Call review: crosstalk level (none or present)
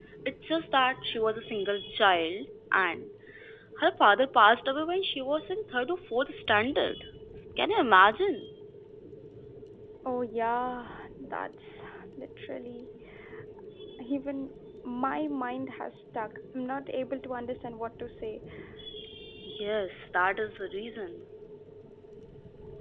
none